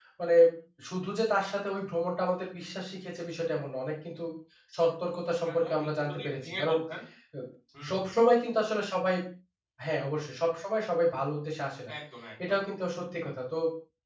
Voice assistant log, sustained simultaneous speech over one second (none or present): present